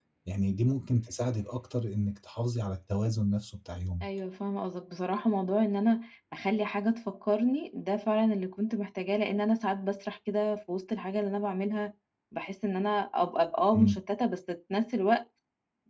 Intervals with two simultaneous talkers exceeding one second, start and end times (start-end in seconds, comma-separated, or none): none